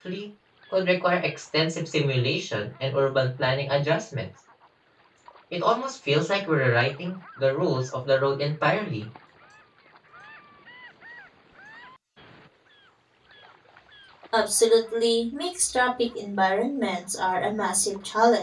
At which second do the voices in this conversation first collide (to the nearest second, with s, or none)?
none